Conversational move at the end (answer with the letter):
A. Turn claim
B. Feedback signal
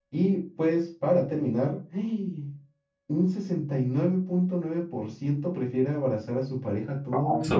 A